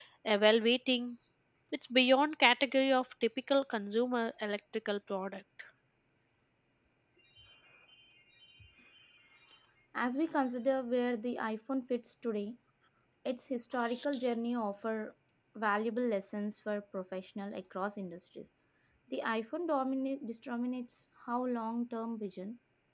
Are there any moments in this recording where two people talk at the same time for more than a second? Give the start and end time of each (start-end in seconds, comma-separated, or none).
none